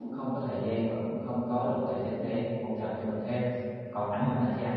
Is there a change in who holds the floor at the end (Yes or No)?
No